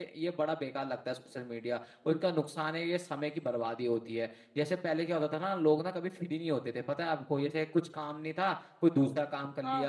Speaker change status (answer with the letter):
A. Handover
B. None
B